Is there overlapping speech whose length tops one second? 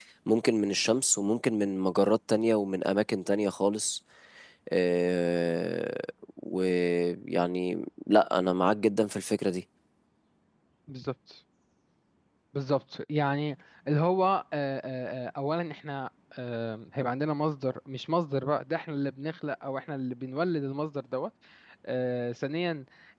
No

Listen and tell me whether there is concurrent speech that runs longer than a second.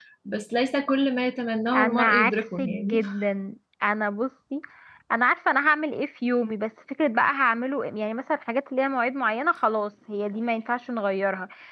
Yes, from 1.7 s

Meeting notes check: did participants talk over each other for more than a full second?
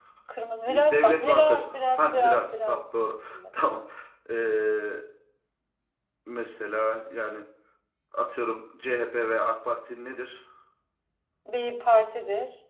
Yes, from 0.7 s

